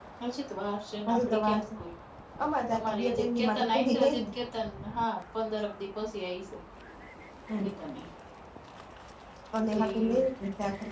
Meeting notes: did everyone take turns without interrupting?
No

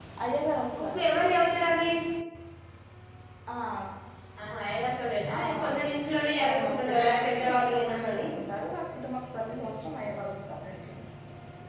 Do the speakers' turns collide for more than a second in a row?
Yes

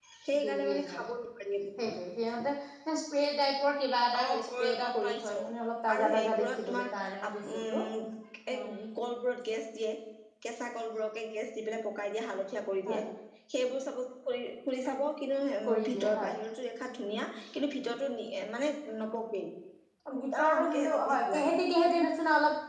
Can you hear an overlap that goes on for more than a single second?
Yes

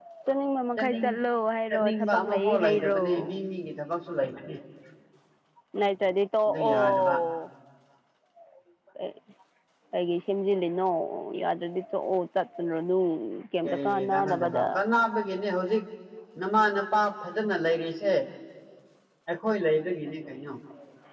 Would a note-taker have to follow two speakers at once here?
Yes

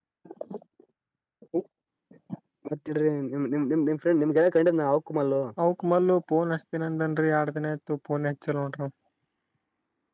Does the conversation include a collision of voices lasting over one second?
No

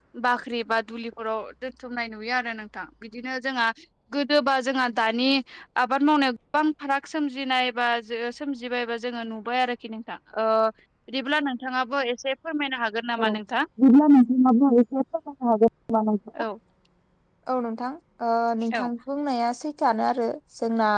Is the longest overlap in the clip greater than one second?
No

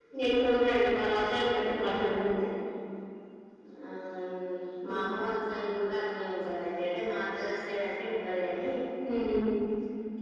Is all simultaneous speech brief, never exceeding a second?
Yes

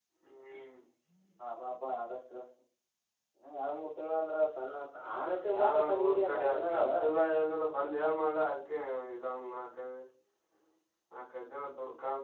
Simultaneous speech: Yes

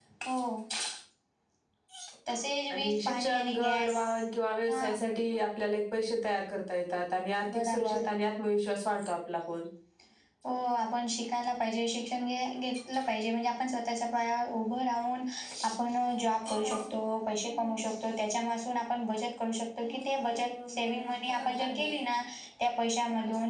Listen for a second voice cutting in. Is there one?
Yes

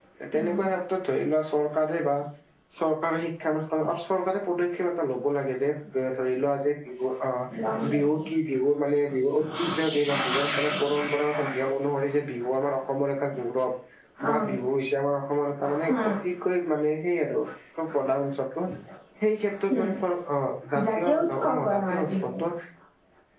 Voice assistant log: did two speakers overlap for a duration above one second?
Yes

